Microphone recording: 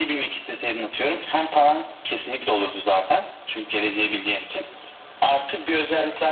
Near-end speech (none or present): none